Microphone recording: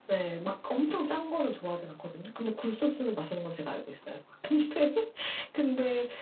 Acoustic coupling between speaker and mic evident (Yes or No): Yes